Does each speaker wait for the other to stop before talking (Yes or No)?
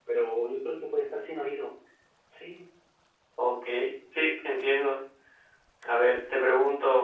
Yes